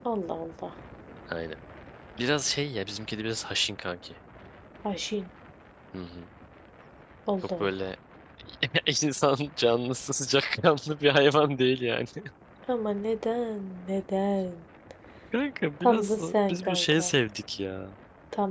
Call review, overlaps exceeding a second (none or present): present